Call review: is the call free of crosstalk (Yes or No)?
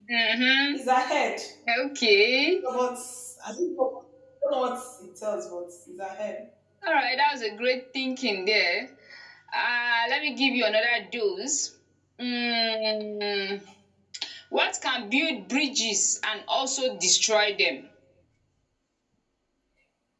Yes